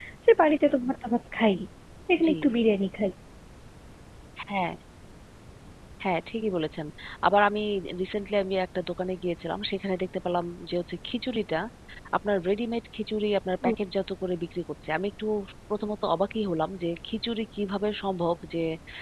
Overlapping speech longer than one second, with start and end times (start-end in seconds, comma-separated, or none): none